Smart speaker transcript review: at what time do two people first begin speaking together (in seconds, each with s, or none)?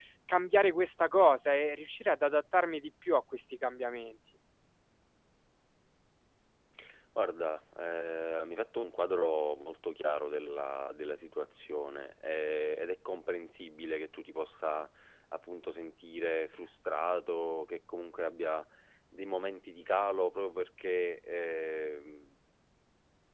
none